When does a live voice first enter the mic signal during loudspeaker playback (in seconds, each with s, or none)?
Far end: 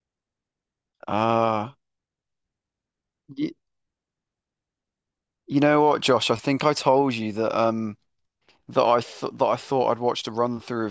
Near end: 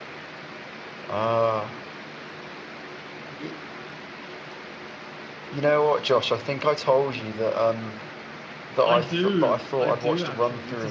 8.8 s